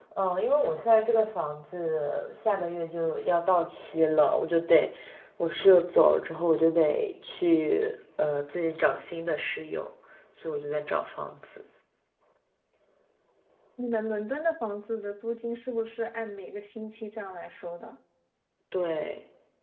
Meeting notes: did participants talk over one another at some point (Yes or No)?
No